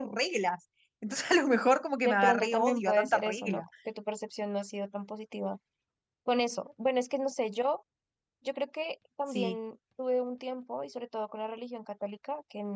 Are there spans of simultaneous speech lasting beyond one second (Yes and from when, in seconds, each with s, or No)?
Yes, from 2.0 s